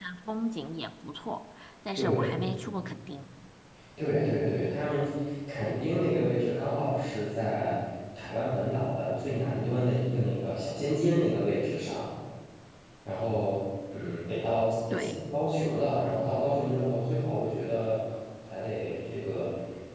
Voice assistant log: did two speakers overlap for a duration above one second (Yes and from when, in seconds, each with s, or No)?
No